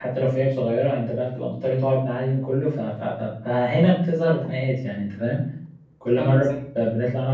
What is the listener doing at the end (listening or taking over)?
listening